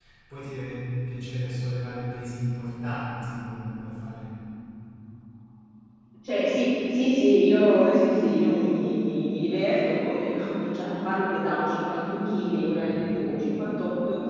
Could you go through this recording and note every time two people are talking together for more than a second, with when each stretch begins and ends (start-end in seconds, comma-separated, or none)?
none